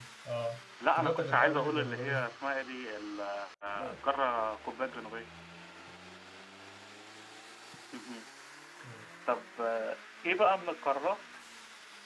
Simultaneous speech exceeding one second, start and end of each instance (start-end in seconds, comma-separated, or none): 0.9-2.2